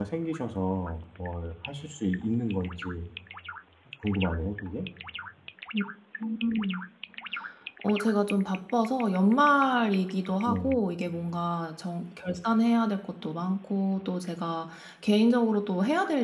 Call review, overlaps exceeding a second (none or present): none